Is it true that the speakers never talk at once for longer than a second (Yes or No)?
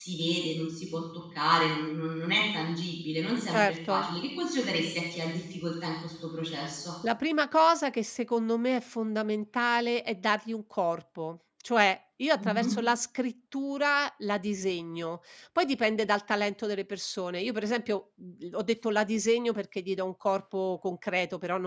Yes